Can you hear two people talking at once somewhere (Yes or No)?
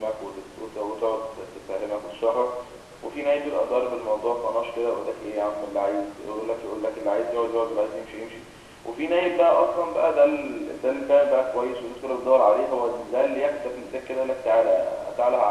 No